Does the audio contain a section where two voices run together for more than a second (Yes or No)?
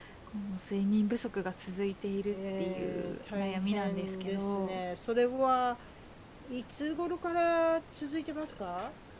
Yes